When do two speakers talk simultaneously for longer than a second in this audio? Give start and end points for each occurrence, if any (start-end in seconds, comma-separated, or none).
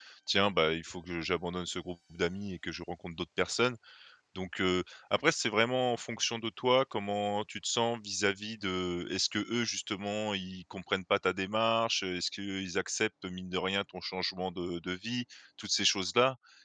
none